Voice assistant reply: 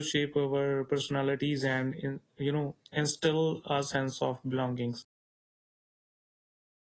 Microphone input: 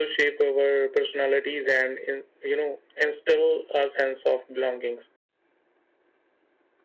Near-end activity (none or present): none